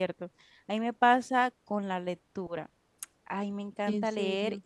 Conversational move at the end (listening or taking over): listening